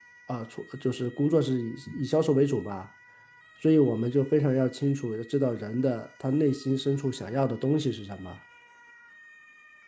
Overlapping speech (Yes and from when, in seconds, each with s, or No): No